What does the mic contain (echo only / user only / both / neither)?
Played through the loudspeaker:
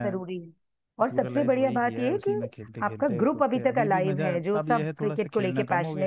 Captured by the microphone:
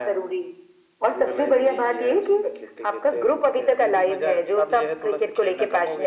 echo only